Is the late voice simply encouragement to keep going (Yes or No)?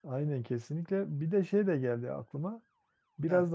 Yes